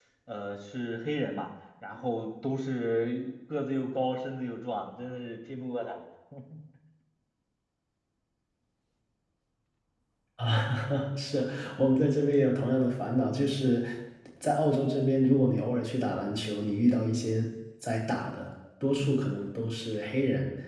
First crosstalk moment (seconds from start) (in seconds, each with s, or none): none